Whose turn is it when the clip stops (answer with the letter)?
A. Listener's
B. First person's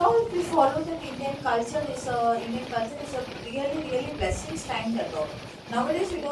B